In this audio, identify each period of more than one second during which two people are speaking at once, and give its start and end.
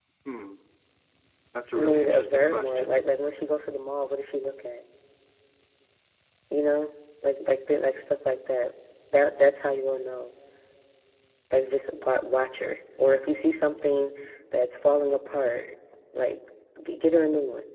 1.7-3.0

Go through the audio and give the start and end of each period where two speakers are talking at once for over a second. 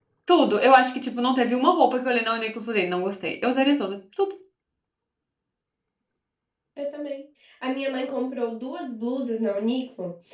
none

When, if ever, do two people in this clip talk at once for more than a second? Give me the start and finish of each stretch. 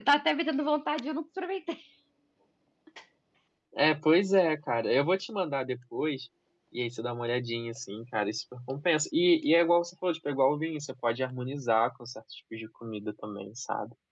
none

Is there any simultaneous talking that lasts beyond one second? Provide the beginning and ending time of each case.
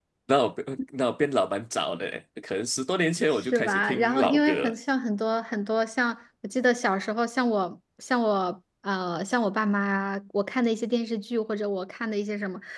3.3-4.7

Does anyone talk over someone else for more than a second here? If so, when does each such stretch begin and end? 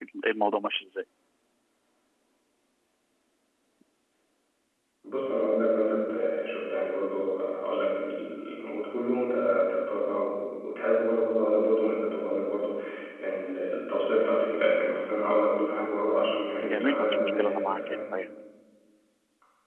16.6-18.0

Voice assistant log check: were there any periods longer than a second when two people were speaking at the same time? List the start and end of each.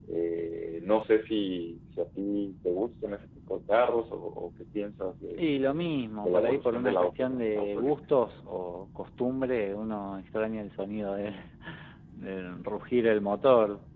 5.4-7.9

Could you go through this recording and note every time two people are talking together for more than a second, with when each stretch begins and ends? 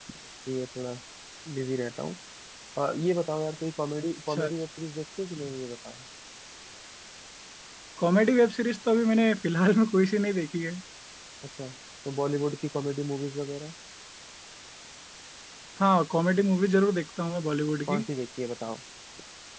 none

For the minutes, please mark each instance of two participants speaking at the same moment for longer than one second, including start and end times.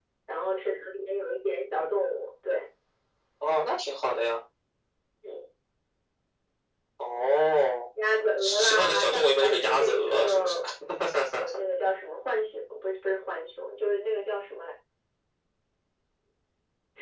8.4-10.6

